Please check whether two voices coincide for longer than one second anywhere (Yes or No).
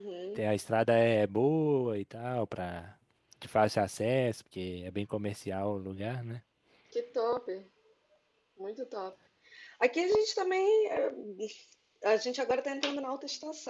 No